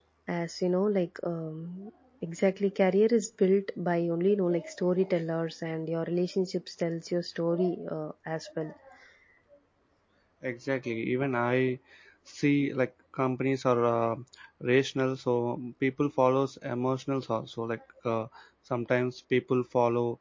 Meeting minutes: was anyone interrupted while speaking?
No

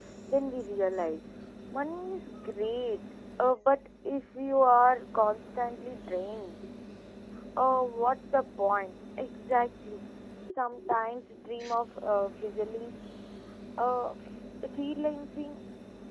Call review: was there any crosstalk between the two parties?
No

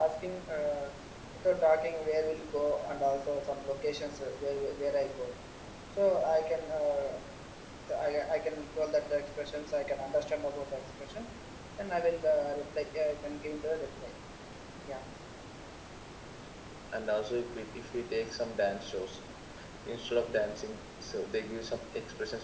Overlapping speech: No

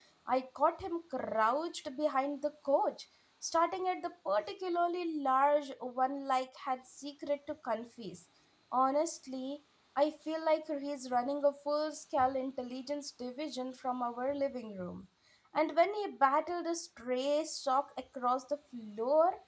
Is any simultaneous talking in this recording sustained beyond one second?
No

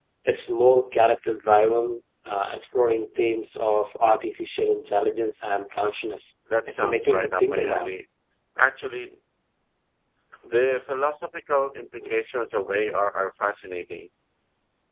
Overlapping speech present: Yes, from 6.5 s

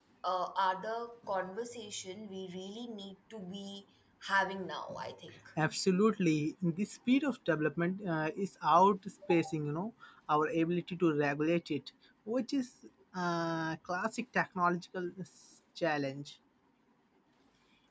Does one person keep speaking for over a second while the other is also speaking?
No

